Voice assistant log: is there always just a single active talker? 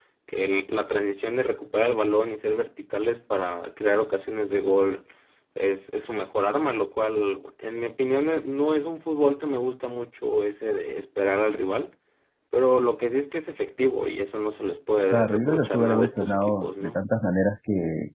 No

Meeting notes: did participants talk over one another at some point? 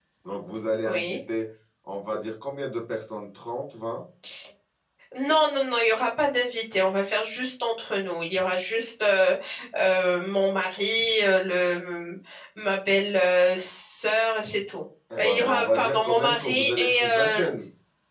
Yes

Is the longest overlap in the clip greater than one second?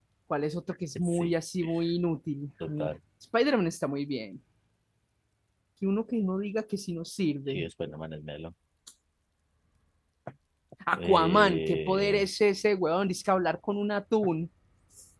Yes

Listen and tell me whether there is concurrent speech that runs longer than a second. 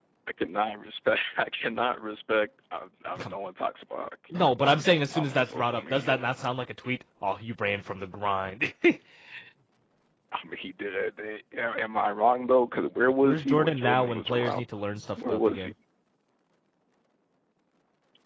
Yes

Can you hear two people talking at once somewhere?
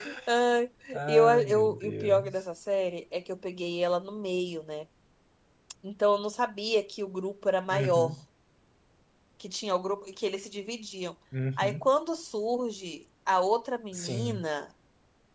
Yes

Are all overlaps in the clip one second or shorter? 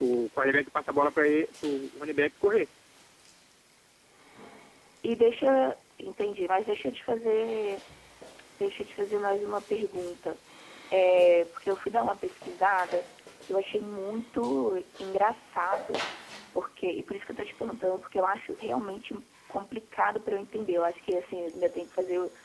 Yes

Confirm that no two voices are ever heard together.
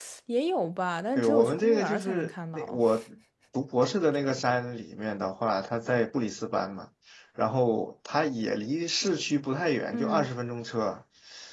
No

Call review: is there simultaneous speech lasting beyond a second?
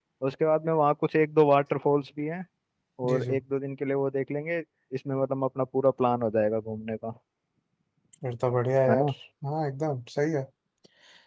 No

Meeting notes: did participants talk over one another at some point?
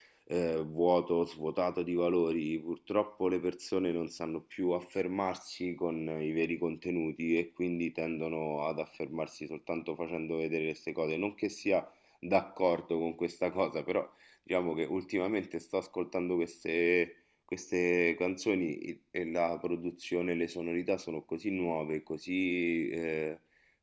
No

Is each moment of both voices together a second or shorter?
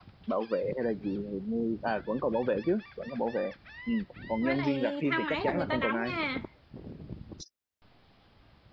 No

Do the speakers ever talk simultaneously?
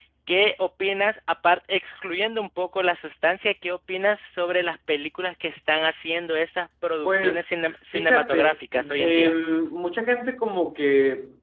Yes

